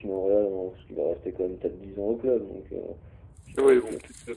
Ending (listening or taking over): taking over